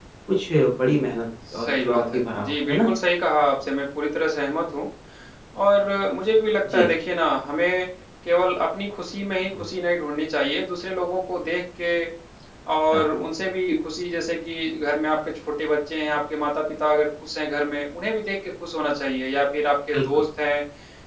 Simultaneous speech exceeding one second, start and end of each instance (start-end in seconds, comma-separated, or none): 1.5-2.9